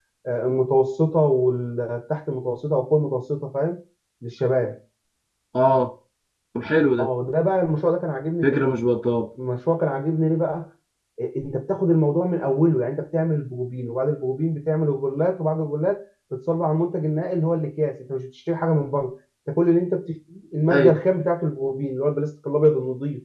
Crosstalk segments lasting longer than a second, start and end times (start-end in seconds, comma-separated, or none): none